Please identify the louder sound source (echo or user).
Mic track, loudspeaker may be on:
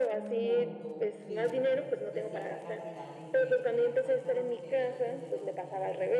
echo